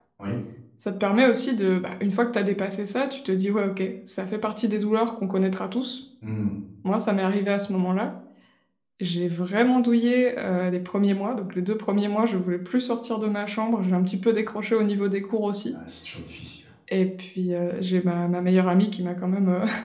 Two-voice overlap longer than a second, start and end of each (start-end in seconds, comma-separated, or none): none